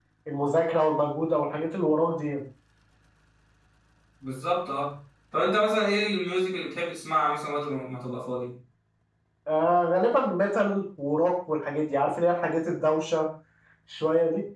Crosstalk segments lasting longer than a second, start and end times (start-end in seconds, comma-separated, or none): none